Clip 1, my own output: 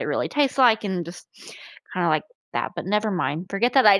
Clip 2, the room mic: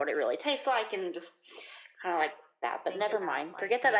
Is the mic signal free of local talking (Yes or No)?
No